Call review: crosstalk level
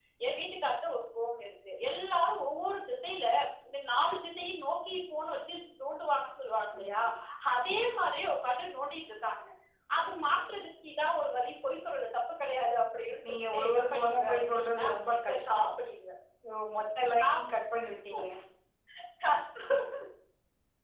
present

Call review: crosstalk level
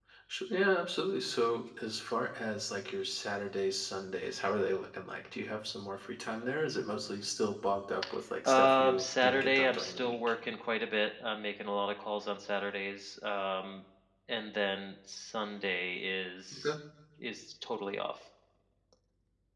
present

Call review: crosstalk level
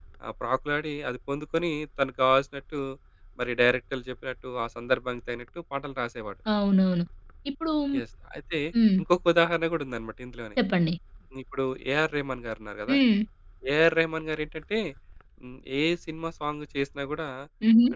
none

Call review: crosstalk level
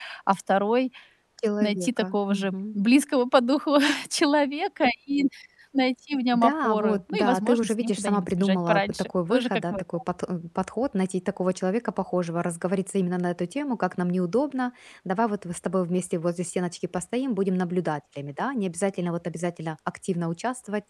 present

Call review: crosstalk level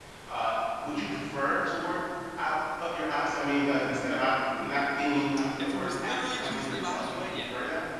present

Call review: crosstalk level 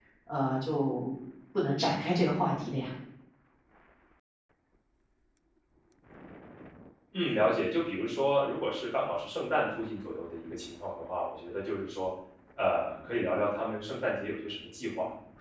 none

